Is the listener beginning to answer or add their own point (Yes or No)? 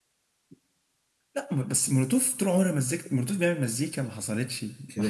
Yes